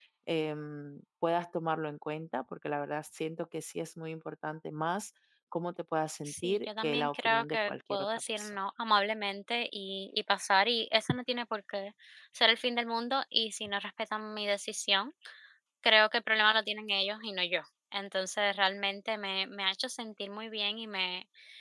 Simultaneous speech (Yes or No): Yes